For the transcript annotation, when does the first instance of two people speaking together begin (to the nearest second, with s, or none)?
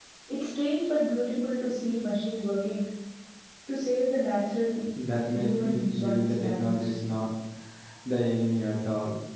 5 s